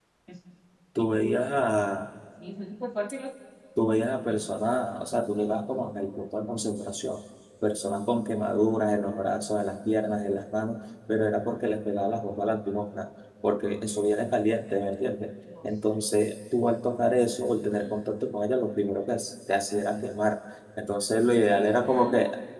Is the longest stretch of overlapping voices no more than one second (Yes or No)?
Yes